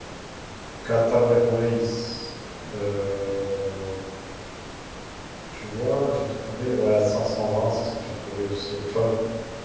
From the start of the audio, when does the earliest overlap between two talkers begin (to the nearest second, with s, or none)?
none